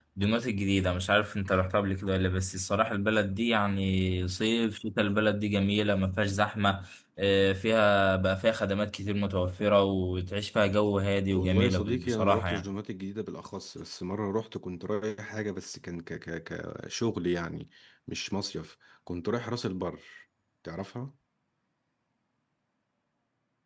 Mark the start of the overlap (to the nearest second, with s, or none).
11 s